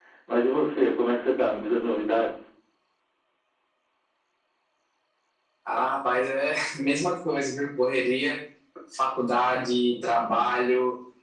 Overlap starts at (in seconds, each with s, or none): none